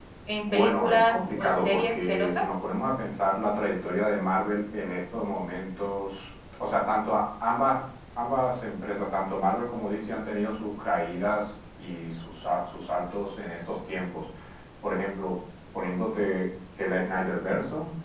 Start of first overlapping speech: 1 s

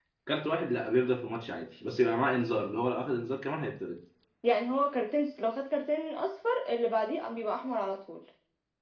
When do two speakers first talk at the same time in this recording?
none

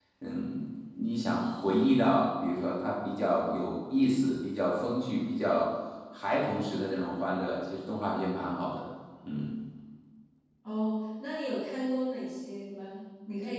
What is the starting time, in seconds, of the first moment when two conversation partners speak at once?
none

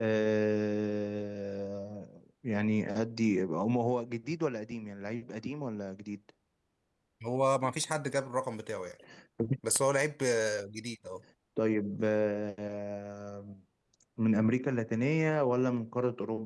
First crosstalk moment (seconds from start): none

